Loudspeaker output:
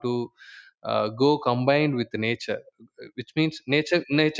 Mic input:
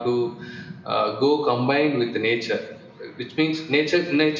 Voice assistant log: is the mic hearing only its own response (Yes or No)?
Yes